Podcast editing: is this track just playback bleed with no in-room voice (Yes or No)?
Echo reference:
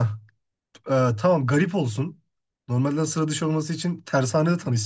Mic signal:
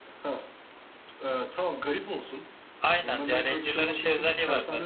No